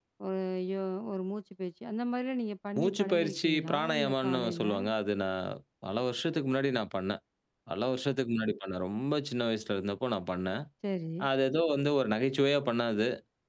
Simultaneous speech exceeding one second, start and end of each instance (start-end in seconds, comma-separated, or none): 2.8-4.6